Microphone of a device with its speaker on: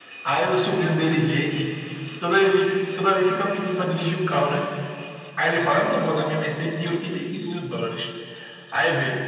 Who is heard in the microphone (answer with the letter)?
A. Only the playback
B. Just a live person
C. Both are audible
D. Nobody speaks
A